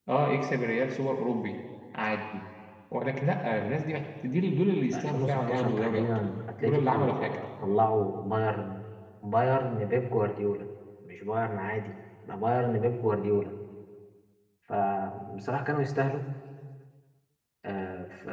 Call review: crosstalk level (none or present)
present